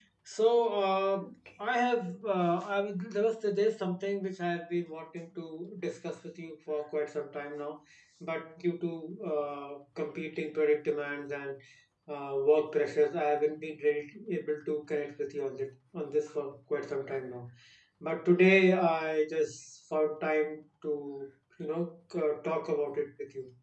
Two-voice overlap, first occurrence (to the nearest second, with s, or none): none